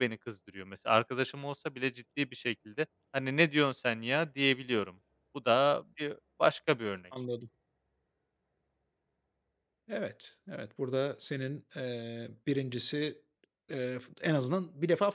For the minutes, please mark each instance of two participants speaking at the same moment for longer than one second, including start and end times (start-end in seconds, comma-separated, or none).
none